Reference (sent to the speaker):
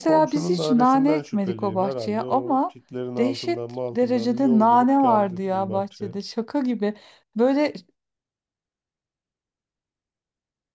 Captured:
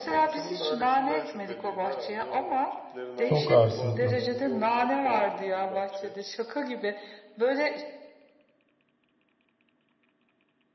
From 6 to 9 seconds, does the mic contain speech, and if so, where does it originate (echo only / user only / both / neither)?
echo only